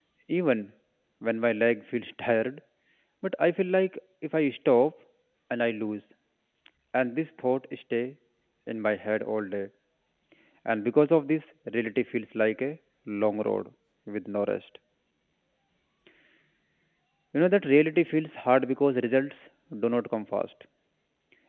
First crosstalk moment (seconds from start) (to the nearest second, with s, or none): none